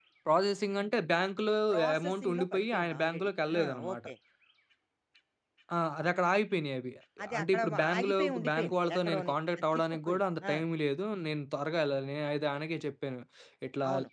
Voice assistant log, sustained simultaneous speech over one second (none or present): present